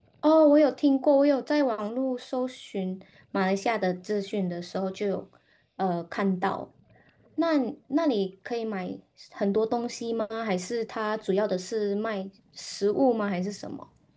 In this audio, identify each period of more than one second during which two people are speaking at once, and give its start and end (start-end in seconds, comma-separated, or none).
none